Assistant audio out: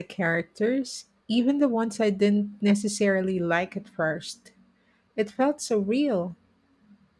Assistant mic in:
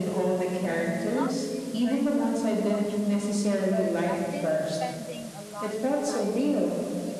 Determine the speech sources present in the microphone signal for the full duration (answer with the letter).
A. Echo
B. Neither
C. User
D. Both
D